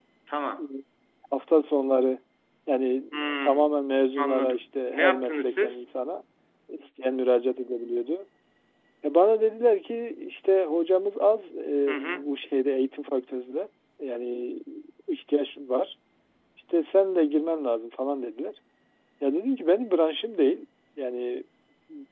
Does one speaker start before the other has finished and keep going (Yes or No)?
Yes